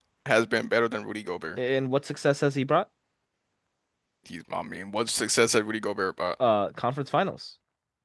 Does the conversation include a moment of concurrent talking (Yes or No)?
No